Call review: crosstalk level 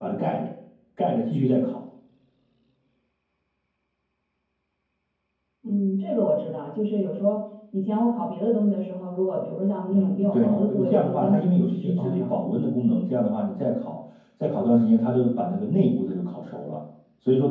present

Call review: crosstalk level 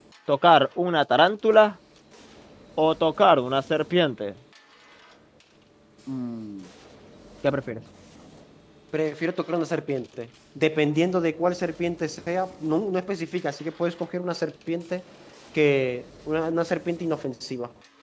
none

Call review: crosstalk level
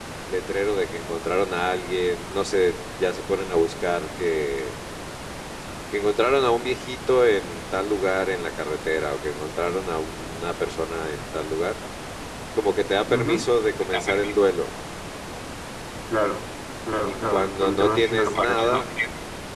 present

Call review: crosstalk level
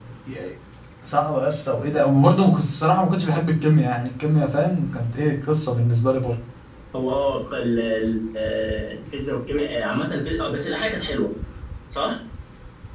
none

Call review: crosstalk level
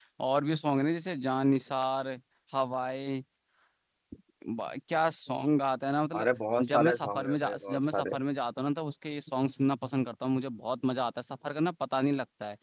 present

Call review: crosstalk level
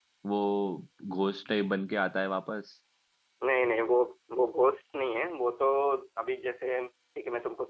none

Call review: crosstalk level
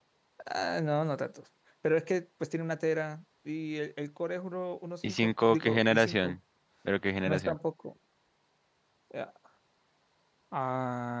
present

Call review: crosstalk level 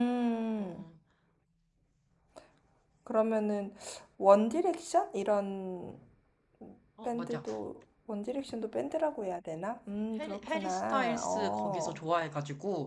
present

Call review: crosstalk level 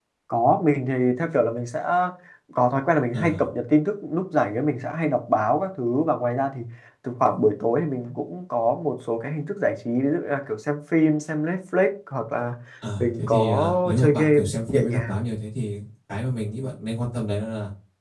present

